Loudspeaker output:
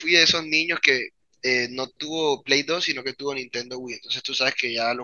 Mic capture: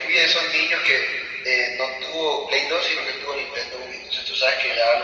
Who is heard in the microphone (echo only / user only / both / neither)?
echo only